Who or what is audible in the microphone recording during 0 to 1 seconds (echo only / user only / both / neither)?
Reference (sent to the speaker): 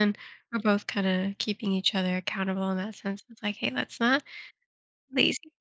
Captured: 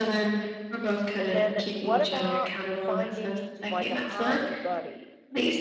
echo only